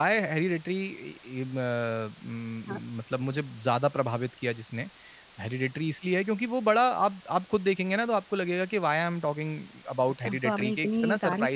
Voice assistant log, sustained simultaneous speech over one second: present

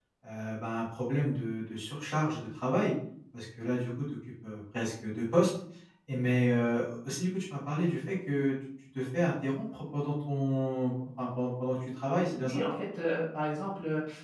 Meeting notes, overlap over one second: none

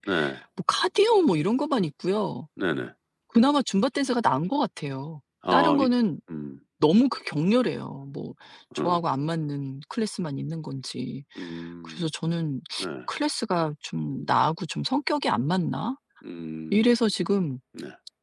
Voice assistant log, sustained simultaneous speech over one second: none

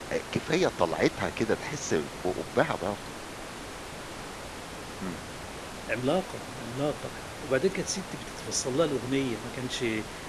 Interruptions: none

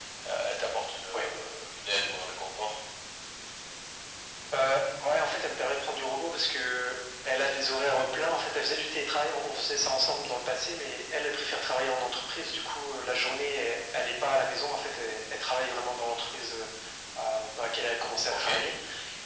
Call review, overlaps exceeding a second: none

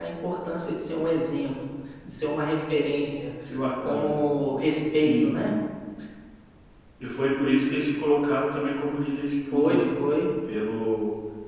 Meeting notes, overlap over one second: none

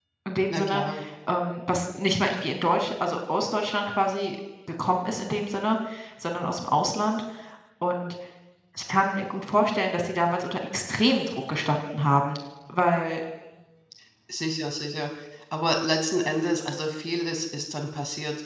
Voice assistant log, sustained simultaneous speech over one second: none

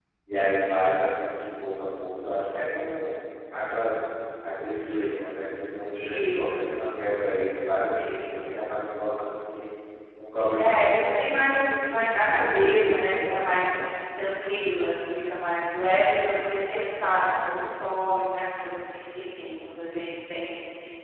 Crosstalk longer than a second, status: present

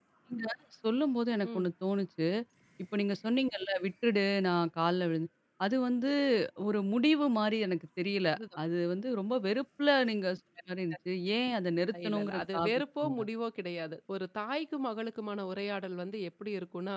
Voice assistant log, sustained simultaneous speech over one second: present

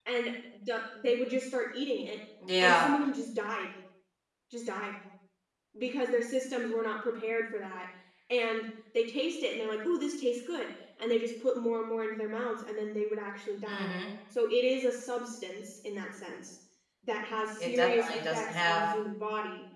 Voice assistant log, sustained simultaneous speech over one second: present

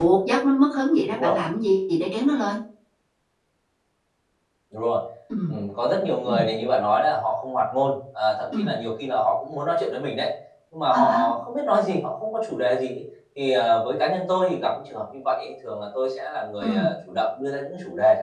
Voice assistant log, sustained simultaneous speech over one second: none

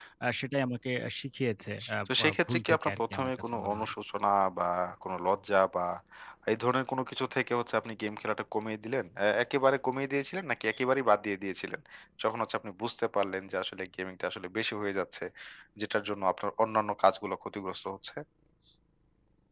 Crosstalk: present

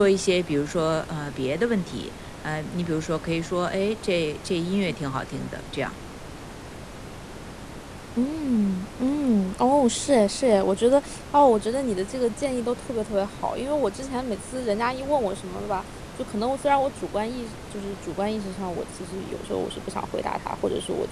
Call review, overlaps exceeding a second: none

